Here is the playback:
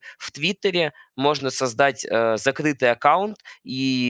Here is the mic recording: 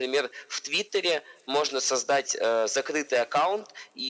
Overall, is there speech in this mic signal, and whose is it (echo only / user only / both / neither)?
echo only